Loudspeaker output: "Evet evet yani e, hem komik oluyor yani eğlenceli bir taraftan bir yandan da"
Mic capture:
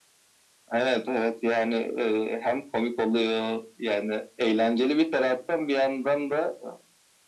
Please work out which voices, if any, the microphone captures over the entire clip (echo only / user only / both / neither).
echo only